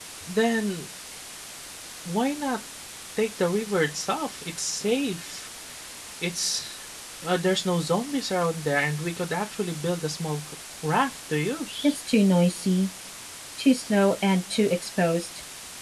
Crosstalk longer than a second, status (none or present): none